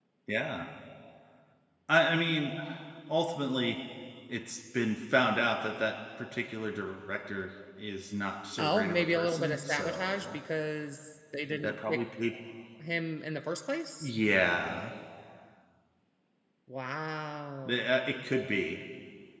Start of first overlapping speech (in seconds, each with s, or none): 8.6 s